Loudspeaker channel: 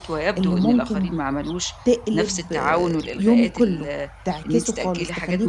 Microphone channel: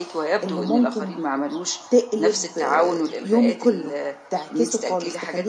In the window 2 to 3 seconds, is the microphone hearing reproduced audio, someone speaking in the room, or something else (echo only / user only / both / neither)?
echo only